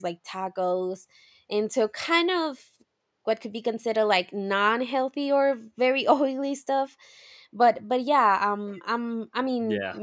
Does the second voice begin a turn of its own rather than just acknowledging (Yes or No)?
No